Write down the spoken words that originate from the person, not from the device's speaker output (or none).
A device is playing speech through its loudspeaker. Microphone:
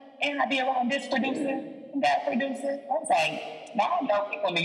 yeah